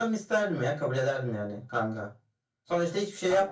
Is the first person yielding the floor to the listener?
No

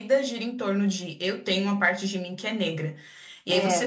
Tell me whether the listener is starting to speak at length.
No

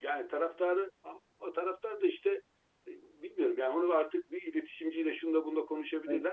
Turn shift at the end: No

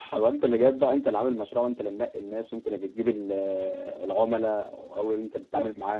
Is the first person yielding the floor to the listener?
No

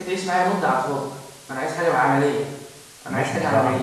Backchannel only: No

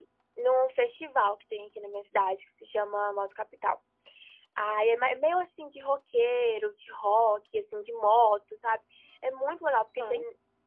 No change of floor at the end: Yes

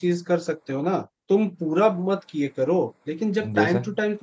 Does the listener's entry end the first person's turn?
No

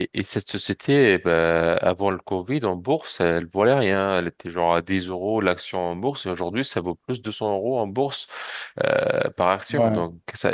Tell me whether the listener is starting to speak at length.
No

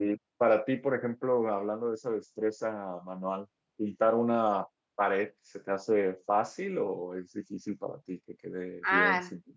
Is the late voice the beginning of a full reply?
Yes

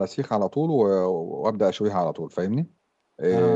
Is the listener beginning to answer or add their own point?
Yes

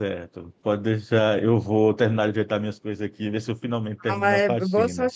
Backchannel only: No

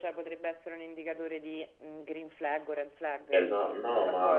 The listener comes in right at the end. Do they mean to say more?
Yes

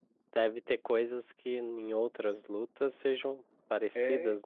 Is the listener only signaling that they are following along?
No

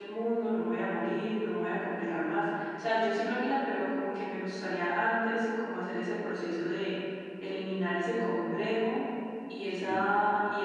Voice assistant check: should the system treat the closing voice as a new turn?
No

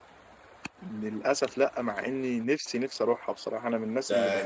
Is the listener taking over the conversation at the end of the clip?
Yes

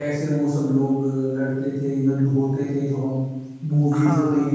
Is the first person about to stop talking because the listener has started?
Yes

